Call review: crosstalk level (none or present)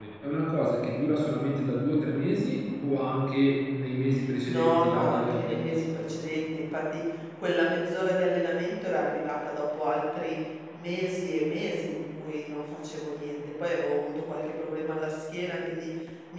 present